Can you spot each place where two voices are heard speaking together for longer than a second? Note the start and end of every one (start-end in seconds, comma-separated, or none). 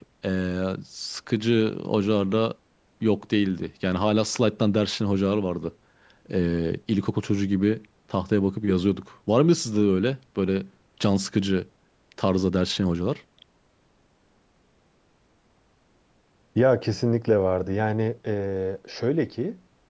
none